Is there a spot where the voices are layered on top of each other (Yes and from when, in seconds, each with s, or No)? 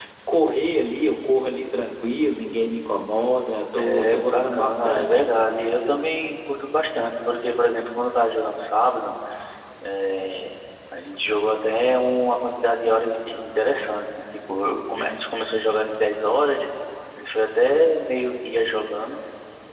Yes, from 3.8 s